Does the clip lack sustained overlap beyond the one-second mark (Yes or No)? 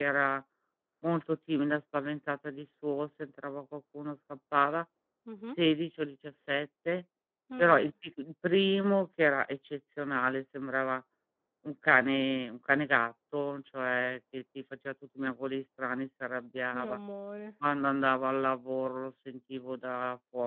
Yes